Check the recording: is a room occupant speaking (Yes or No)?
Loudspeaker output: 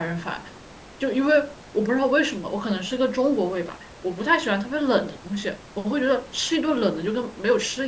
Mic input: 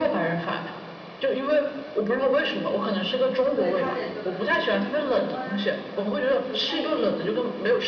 Yes